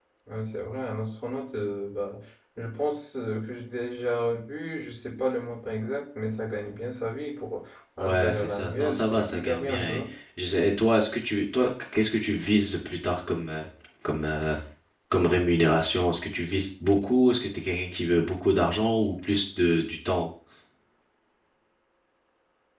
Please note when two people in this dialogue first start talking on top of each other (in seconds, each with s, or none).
8.0 s